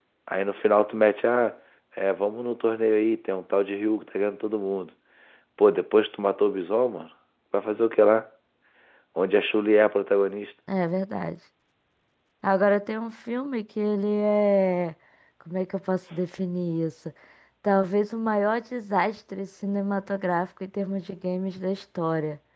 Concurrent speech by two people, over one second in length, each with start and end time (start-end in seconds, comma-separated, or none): none